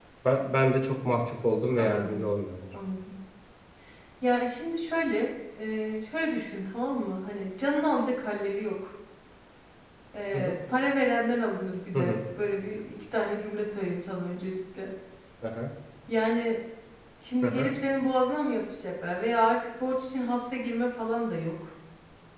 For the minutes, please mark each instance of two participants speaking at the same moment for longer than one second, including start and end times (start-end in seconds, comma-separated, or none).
none